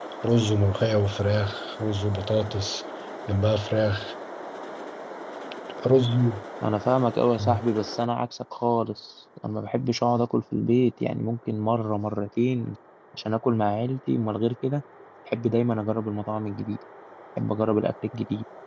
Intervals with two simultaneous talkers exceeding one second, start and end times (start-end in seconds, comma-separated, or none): none